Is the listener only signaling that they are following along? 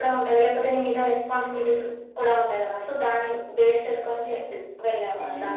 No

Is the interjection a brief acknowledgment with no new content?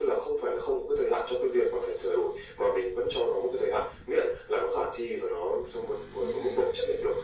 Yes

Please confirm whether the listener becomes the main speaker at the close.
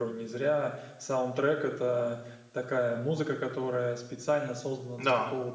No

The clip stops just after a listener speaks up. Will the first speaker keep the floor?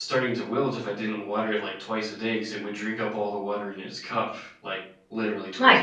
No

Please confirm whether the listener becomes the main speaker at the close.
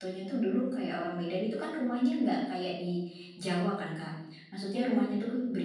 No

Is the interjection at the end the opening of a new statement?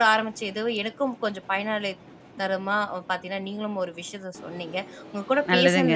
No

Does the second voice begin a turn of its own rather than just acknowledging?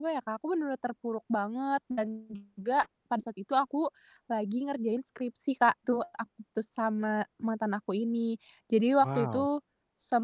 No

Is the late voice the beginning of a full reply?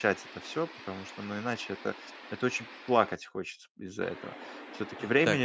Yes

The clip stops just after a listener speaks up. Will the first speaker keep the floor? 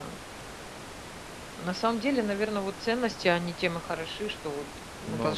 Yes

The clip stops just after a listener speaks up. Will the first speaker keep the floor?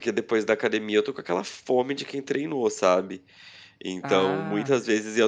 Yes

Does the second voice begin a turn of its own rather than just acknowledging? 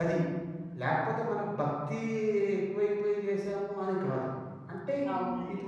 No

